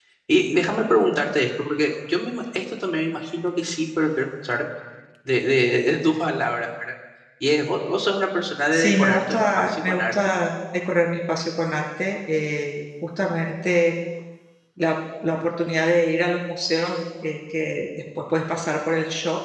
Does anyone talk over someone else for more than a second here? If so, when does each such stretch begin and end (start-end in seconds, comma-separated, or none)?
8.7-10.2